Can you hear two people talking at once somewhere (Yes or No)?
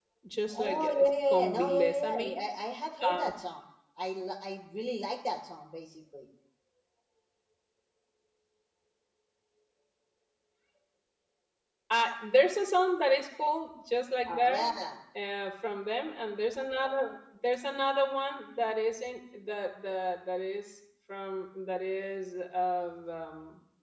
Yes